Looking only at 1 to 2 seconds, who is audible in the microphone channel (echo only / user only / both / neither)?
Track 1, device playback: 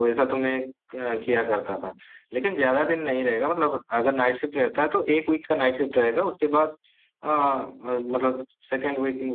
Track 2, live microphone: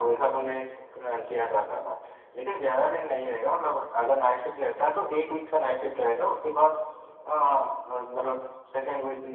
echo only